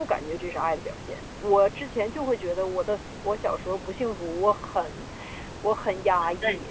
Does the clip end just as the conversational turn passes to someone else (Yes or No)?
No